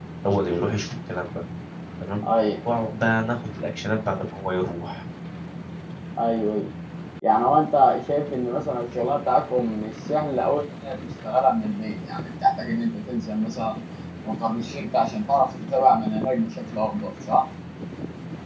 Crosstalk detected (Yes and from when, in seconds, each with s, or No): No